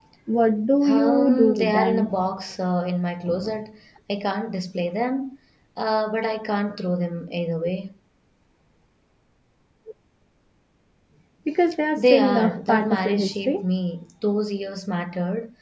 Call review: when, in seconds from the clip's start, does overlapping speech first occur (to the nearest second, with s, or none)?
1 s